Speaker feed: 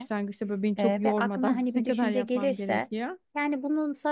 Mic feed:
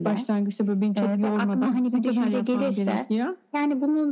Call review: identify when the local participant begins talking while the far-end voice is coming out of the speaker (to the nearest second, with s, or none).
none